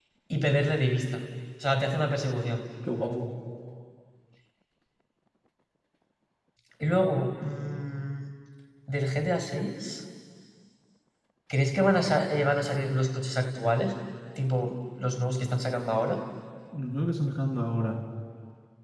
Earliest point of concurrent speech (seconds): none

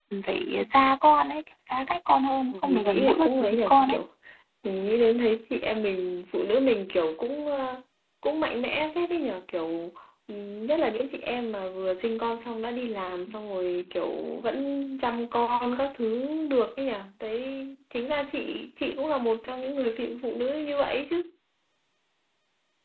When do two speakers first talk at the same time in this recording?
2.5 s

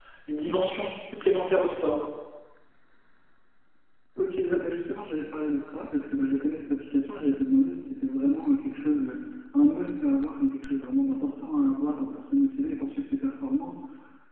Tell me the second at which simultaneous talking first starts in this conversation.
none

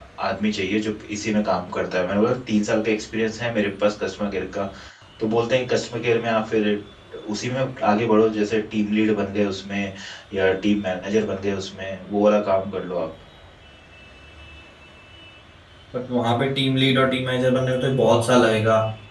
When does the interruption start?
none

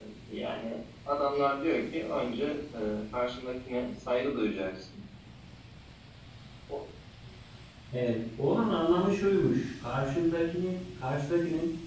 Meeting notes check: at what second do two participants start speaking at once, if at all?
none

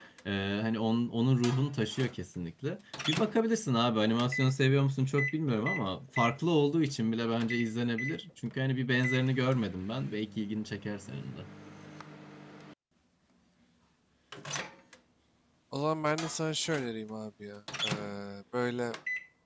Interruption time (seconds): none

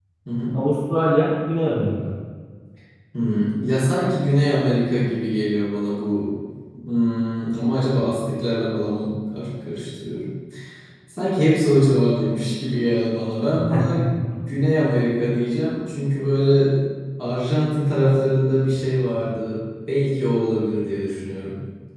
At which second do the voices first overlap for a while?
none

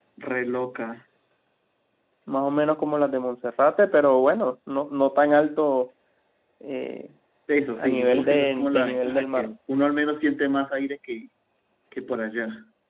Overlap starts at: 7.8 s

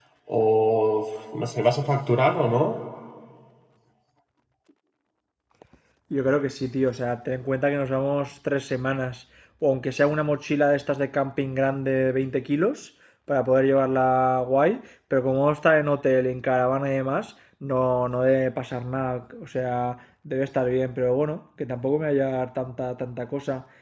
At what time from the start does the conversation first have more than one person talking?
none

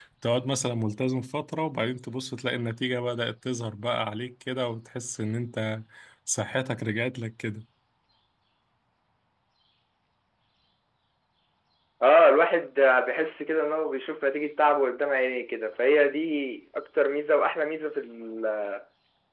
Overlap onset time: none

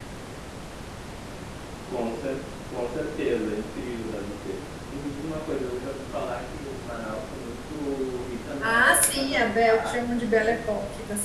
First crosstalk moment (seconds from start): 8.6 s

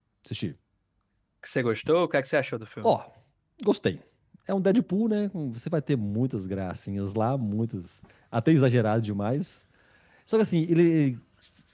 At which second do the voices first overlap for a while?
none

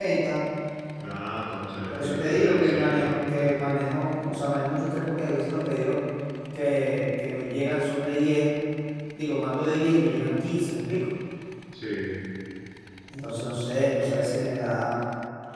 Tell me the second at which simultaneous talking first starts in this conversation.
1.9 s

